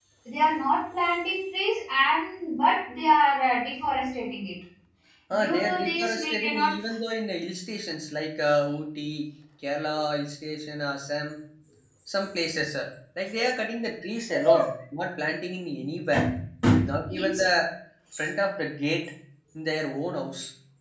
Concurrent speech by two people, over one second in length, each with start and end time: 5.4-6.7

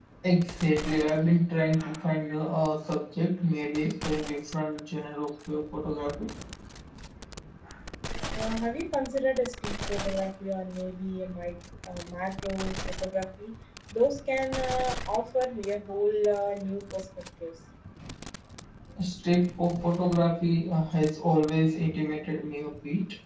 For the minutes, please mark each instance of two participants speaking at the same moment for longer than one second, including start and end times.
none

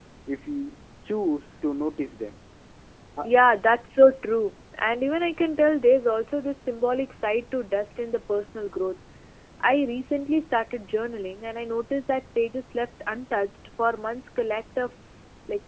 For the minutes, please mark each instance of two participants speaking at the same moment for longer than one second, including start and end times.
none

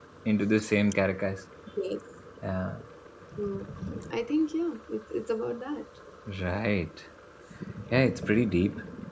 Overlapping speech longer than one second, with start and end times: none

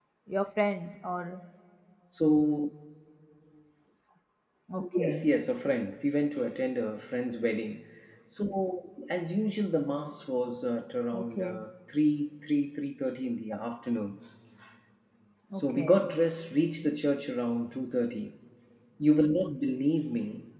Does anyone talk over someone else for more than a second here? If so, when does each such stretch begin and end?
none

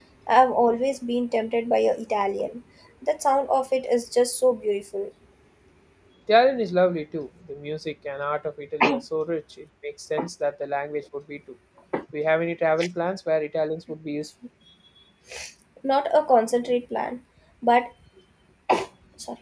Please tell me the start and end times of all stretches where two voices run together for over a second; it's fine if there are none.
none

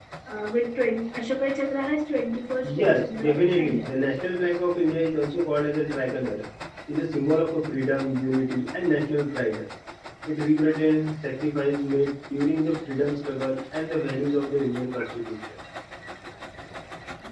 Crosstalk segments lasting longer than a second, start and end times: 2.6-3.9

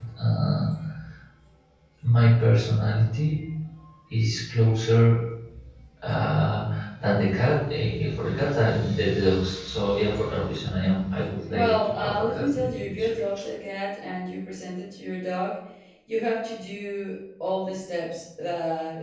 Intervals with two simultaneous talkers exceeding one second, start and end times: 11.5-13.1

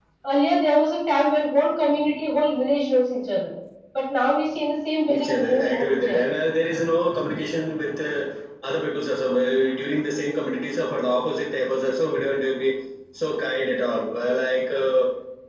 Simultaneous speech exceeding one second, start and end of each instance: 5.1-6.3

